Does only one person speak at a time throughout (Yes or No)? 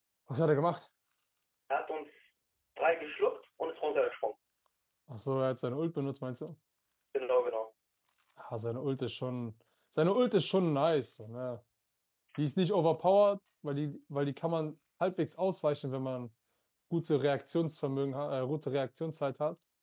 Yes